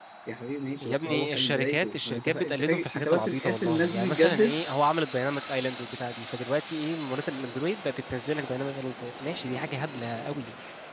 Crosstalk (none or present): present